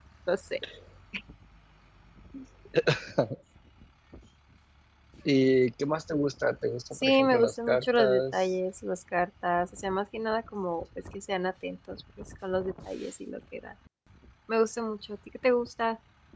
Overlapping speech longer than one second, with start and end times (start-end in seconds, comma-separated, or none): 6.9-8.4